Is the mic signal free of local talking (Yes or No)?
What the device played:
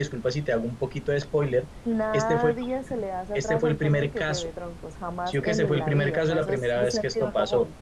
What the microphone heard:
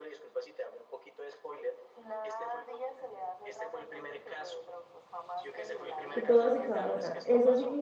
No